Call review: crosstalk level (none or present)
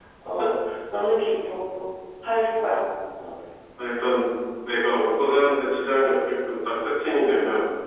none